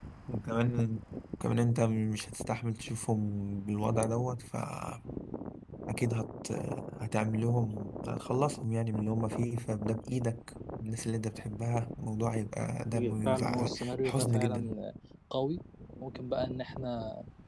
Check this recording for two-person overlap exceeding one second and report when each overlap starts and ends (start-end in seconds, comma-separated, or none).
12.9-14.7